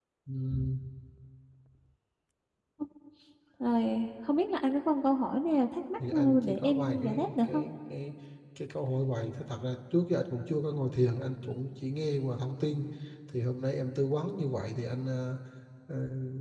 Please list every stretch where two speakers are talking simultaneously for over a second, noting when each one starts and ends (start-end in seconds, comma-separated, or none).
6.1-7.6